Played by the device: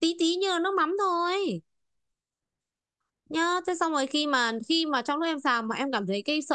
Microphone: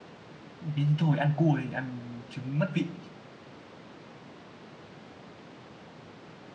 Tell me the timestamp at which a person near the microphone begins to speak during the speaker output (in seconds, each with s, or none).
0.6 s